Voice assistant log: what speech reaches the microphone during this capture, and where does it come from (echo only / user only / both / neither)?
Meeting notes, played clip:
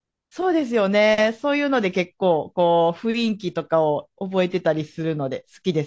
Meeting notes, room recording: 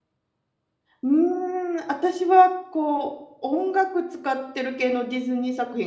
user only